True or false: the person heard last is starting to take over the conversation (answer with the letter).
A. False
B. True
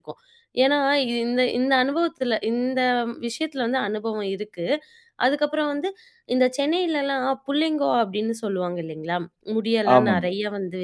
A